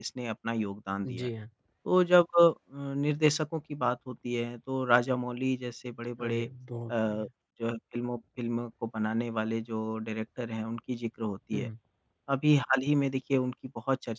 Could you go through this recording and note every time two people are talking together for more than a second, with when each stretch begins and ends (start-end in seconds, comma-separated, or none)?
none